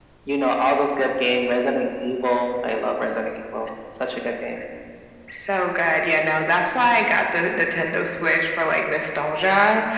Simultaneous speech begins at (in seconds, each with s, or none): none